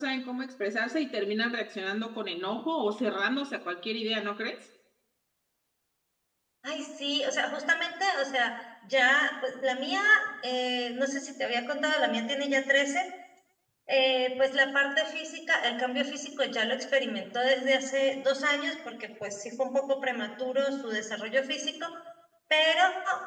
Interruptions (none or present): none